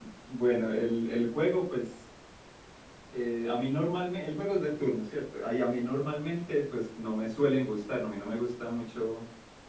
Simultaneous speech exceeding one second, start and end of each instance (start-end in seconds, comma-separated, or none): none